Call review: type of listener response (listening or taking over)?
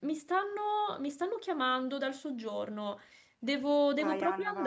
taking over